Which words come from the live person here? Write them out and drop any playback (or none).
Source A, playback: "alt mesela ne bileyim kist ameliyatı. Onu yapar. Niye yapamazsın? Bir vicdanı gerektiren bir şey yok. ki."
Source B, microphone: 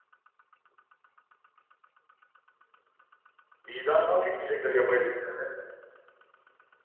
Vicdanı nasıl yükleyecekler yapay zekaya?